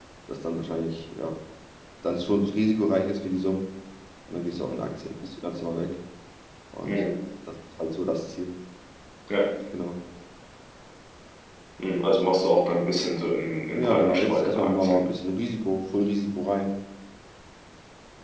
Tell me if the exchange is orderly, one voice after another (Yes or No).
No